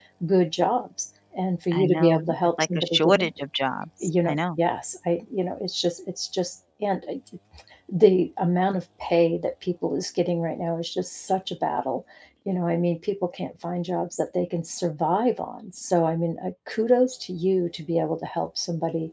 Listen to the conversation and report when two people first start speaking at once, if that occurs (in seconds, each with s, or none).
1.7 s